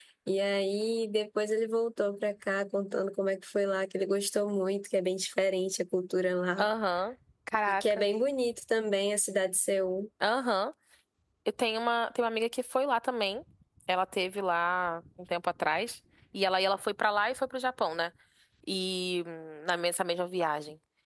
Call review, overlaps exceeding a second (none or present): none